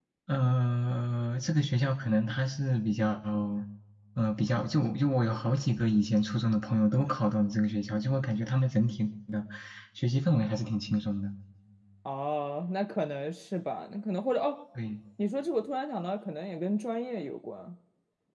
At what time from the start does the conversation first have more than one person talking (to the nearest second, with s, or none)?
none